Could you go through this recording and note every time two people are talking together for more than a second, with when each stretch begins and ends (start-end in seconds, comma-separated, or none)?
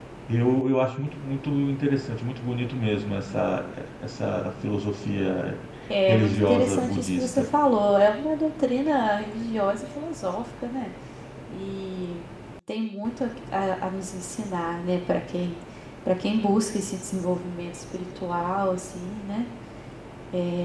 6.1-7.5